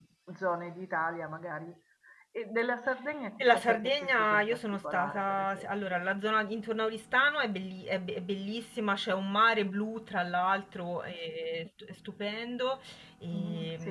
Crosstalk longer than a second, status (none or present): present